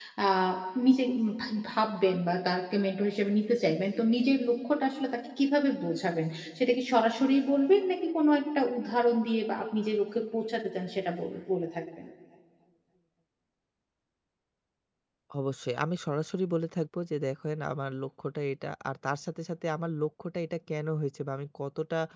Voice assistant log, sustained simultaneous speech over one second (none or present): none